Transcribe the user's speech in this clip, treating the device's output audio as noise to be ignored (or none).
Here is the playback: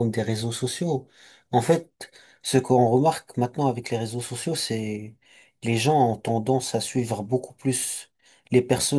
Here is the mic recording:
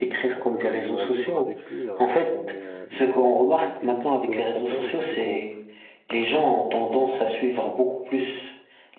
on peut quasiment vivre avec lui alors qu'on est, euh, il y a, il y a des, des mille kilomètres entre nous. Du coup,